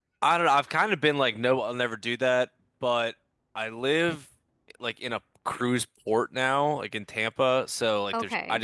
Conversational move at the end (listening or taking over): listening